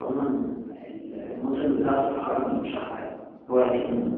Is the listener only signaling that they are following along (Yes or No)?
Yes